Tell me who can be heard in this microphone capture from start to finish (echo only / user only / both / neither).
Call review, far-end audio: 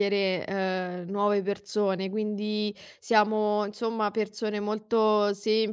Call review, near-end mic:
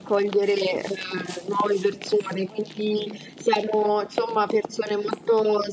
echo only